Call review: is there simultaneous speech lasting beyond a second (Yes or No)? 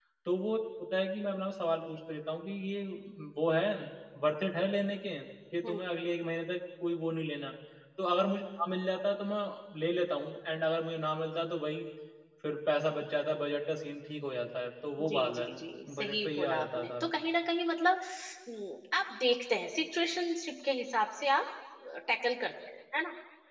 Yes